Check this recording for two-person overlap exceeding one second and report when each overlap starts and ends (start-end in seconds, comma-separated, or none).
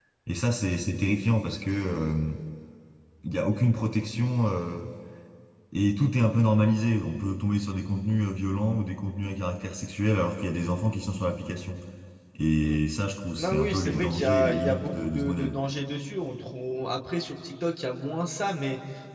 13.4-15.6